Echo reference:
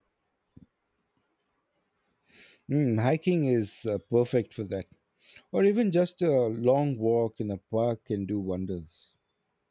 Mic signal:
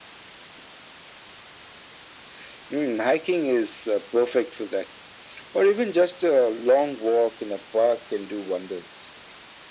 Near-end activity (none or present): none